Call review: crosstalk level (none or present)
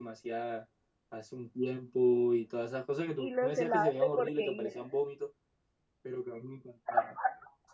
present